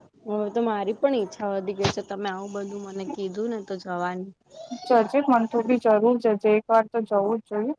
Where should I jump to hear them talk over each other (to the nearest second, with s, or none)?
none